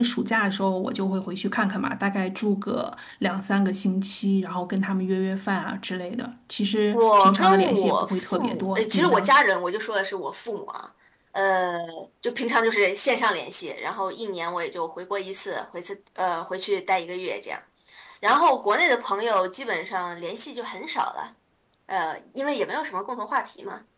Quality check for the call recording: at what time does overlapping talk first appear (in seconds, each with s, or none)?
6.9 s